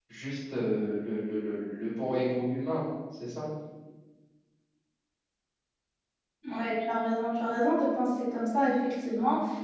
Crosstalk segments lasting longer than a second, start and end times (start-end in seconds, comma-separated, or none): none